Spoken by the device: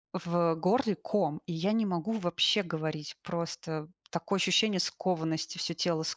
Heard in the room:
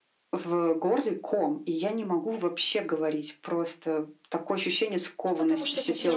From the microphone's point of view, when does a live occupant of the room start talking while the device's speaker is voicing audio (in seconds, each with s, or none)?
5.2 s